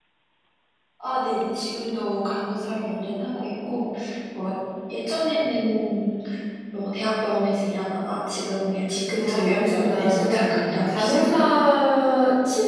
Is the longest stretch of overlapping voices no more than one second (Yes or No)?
No